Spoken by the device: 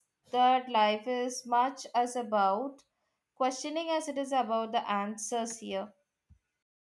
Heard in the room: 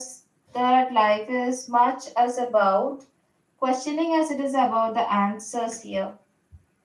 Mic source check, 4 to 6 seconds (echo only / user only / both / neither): echo only